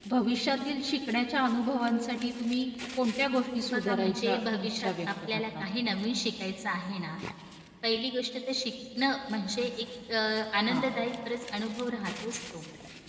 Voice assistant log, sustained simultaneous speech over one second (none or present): present